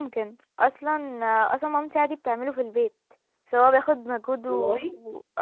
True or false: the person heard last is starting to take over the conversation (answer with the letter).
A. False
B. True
A